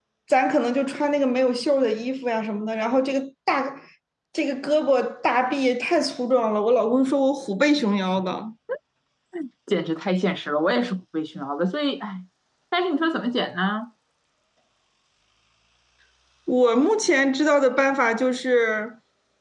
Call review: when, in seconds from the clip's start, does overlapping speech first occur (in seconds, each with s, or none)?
none